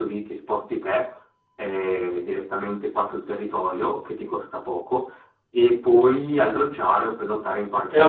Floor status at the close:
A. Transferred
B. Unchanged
A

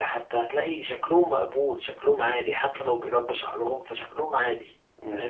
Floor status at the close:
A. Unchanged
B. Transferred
B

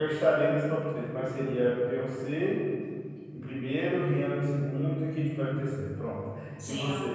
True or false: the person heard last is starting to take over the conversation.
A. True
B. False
A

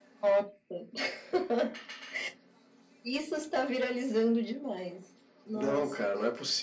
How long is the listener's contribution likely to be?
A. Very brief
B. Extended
B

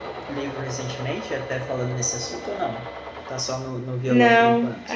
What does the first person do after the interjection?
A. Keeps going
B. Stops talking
B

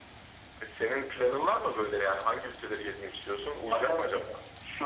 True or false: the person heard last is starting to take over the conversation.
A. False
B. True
B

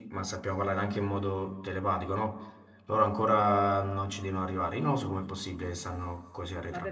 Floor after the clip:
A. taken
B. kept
A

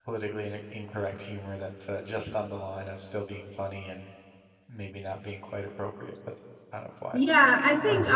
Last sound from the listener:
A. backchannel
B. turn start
B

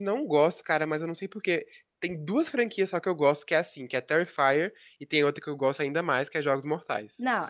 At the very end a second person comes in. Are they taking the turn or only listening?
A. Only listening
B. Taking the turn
B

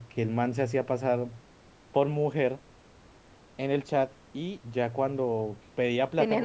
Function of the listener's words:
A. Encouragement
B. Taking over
A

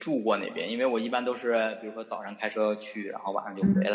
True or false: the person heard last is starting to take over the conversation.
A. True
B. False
A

